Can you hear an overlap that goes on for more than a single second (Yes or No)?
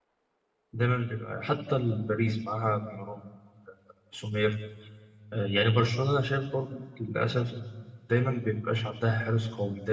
No